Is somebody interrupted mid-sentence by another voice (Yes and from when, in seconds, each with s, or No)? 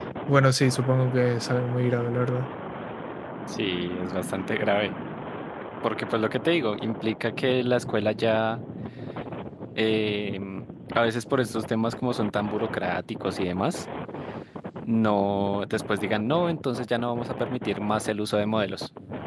No